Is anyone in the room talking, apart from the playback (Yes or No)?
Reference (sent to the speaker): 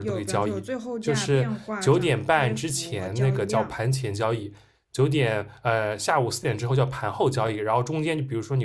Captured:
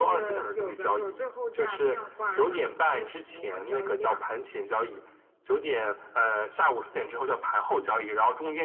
No